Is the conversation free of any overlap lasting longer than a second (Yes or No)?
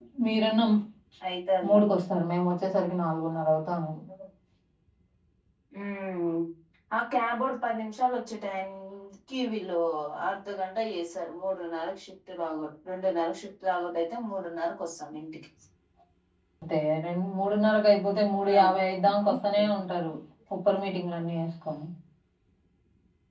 Yes